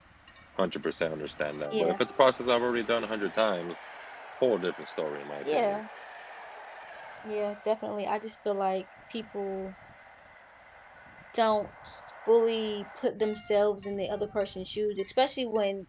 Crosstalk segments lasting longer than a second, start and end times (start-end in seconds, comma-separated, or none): none